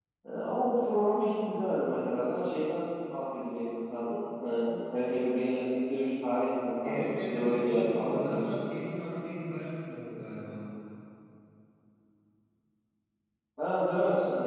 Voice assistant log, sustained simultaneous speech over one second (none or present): present